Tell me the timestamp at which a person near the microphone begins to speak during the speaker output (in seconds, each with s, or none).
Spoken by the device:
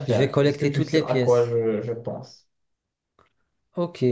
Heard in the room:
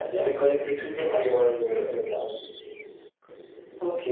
none